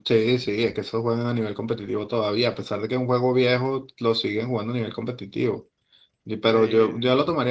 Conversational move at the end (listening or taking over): listening